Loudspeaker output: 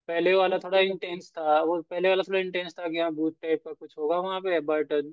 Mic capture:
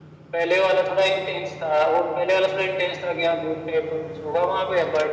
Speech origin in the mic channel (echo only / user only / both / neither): echo only